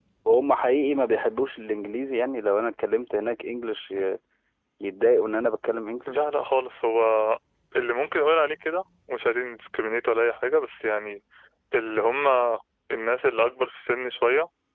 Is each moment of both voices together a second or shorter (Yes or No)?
Yes